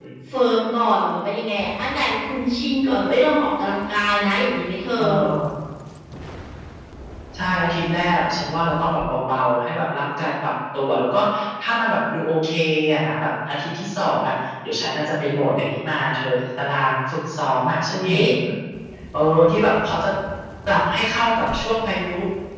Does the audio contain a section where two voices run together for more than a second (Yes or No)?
No